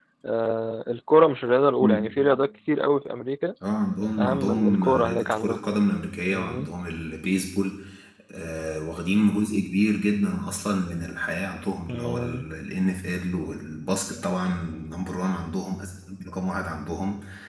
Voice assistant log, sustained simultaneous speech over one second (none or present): present